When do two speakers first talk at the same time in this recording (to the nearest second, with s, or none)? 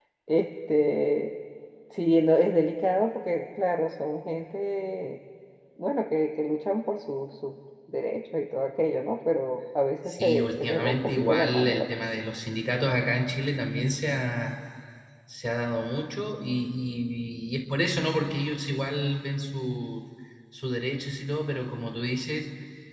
10 s